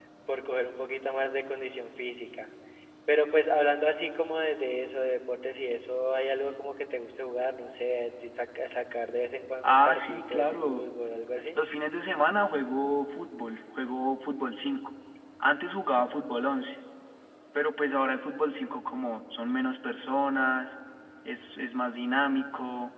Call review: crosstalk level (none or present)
present